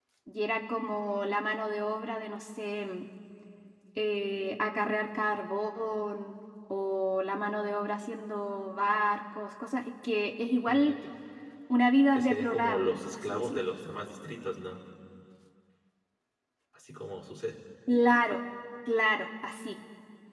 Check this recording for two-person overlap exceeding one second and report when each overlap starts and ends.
12.1-13.6

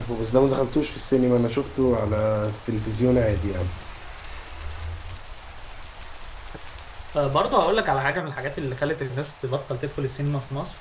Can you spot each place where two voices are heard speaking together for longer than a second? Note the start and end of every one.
none

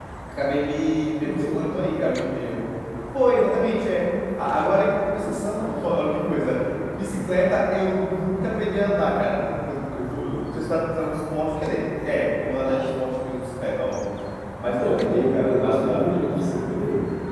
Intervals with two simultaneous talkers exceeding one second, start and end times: 14.8-16.1

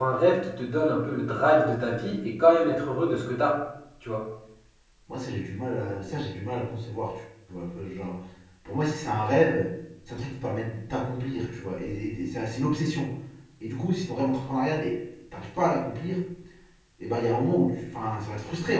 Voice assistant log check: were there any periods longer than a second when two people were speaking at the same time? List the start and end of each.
none

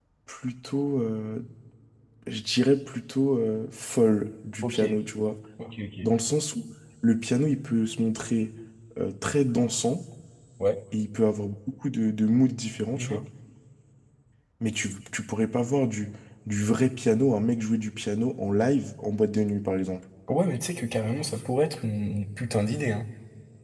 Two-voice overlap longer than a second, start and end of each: none

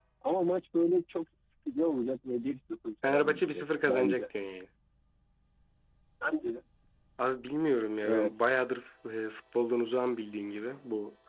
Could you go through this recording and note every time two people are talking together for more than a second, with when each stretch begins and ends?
3.0-4.2

